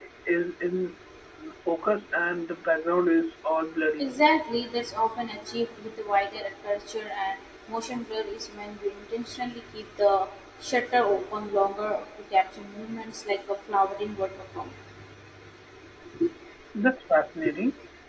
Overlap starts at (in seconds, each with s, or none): none